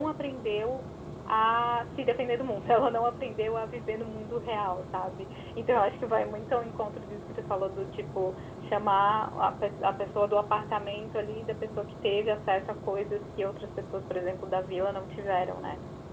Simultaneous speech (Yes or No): No